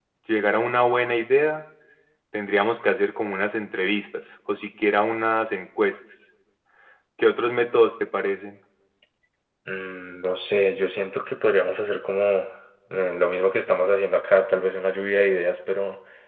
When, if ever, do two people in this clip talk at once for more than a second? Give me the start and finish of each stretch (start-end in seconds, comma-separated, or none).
none